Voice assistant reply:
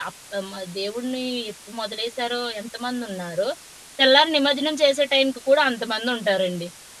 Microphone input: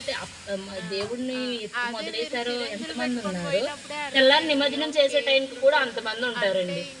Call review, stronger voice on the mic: echo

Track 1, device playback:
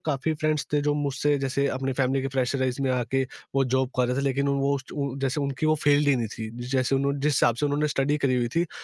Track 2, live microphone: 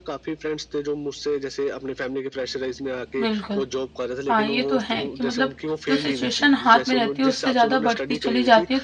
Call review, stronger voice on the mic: user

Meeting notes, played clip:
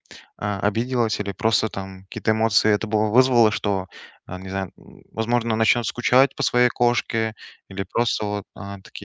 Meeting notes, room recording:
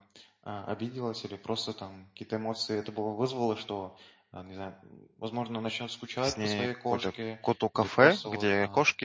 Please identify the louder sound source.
user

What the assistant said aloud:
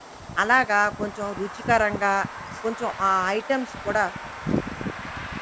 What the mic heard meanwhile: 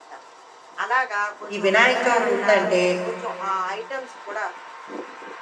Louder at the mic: user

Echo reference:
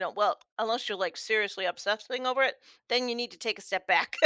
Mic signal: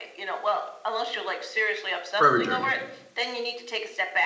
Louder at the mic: user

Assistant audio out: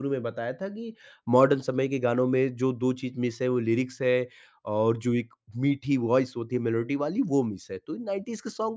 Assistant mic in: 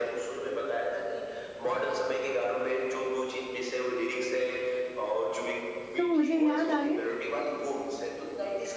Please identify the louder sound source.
user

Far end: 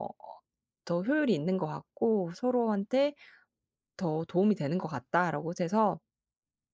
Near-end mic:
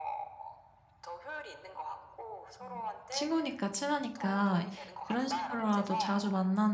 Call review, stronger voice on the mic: user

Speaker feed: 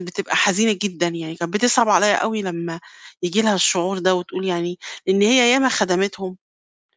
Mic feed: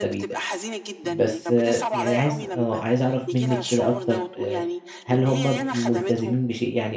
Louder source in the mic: user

